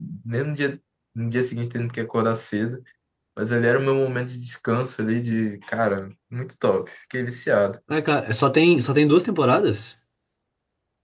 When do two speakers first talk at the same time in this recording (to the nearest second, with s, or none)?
none